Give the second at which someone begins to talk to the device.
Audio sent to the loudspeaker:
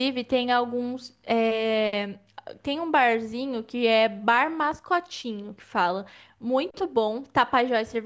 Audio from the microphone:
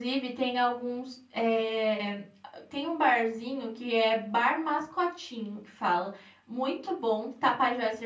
none

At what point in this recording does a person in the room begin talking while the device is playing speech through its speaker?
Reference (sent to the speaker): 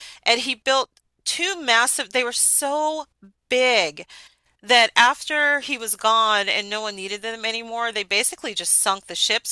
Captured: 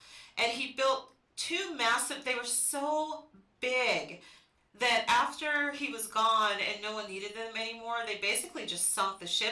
none

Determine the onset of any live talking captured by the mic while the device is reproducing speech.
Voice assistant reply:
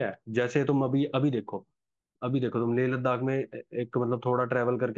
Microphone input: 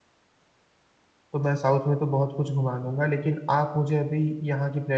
1 s

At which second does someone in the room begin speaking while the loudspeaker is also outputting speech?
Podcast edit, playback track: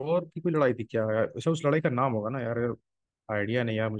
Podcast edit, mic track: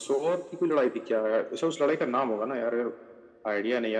none

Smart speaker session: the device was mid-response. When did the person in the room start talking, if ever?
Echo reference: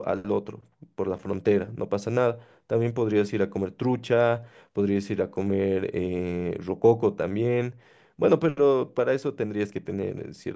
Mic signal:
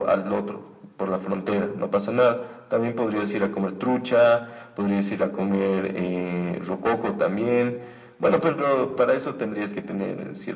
none

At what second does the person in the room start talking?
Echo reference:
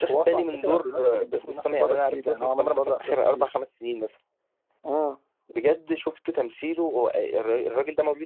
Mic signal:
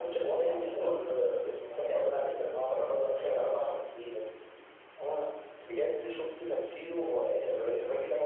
none

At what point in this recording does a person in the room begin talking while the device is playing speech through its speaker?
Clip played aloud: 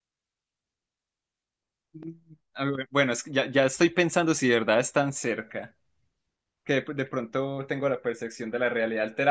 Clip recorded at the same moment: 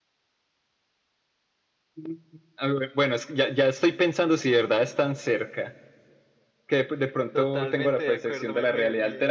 7 s

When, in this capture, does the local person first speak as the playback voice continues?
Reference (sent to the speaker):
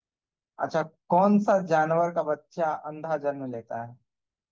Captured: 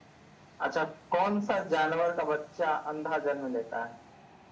none

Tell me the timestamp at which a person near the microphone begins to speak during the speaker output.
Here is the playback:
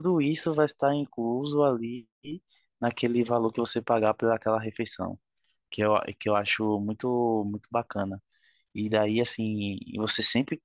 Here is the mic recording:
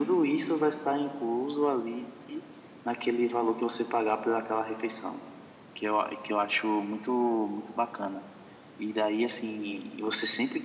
none

